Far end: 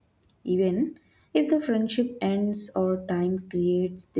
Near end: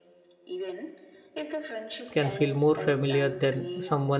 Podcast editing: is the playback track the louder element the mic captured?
No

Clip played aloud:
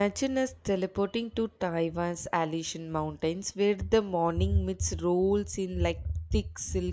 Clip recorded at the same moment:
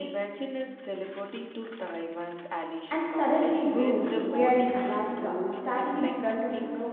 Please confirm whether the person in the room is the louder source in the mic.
Yes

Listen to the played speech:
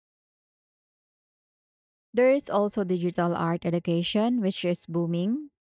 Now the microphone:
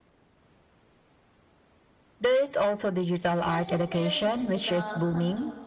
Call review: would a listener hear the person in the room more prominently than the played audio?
No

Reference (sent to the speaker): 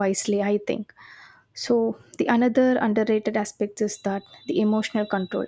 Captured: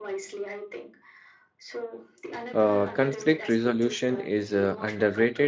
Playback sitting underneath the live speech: Yes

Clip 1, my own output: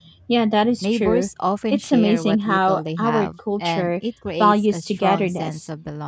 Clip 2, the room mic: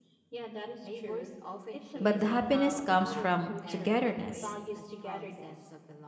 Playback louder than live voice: No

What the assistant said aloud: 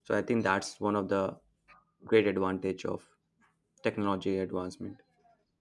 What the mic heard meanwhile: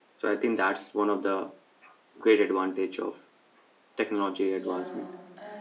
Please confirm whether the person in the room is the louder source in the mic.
No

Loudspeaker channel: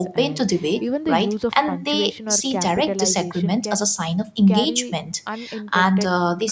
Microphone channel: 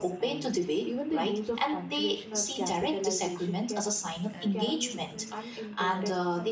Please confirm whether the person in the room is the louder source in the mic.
No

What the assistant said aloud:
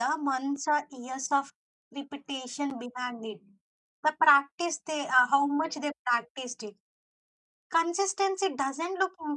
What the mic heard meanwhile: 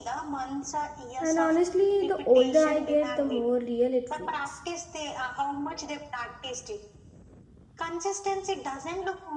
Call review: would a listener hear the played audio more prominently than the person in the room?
No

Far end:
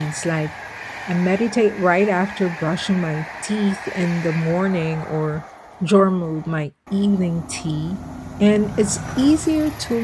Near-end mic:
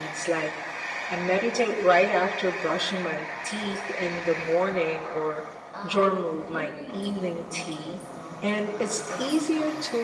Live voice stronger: No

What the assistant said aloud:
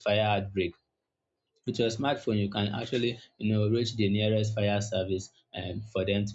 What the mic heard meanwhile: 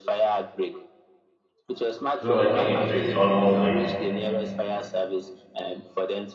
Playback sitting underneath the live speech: Yes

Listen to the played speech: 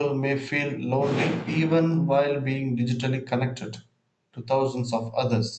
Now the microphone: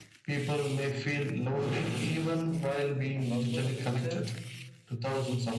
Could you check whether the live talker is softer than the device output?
Yes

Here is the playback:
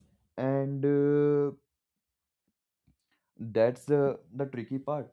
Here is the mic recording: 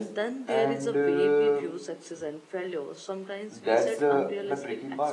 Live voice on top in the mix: No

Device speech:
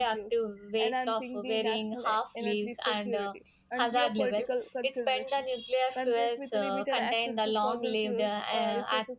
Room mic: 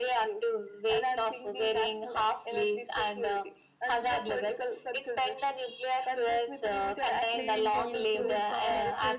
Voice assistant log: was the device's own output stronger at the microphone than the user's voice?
Yes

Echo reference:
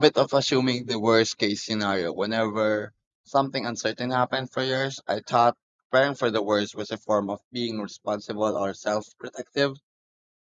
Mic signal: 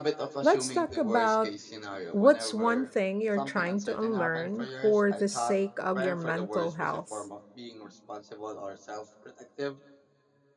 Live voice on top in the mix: Yes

